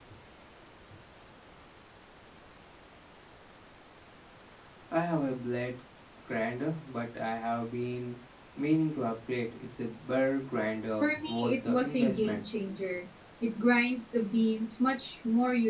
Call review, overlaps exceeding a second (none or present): present